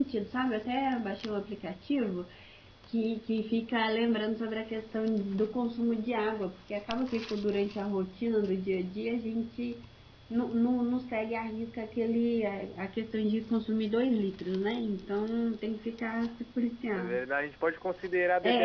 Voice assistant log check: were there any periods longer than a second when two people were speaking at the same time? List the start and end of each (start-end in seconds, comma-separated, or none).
none